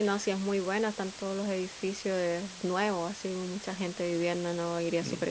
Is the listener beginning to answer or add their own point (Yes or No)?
Yes